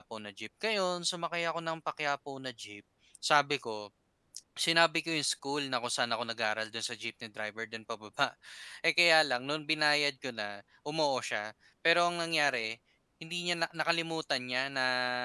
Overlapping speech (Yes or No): No